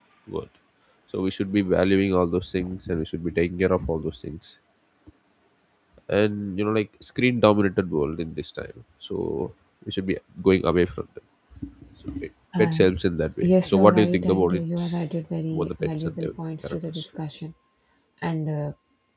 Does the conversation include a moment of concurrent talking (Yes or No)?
Yes